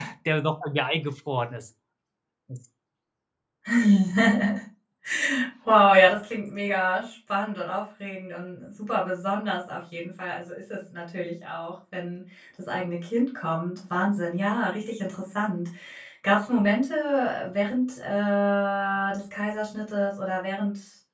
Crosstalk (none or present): none